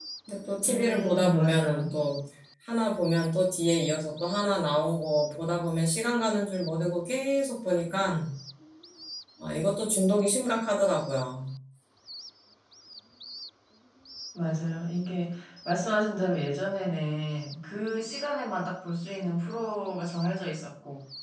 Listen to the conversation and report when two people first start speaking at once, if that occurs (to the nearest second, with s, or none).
1 s